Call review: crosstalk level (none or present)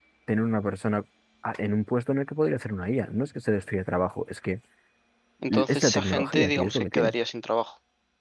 present